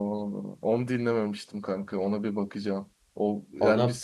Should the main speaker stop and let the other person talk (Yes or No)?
No